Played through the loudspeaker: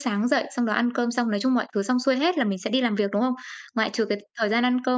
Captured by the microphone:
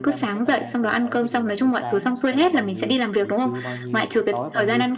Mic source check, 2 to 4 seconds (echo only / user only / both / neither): both